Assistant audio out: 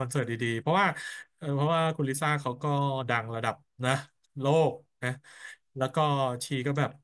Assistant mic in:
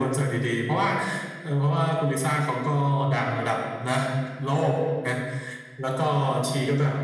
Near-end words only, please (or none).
none